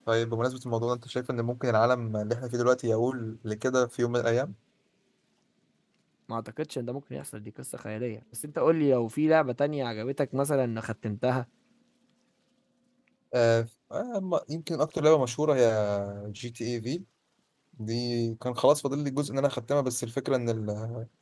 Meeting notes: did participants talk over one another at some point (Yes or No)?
No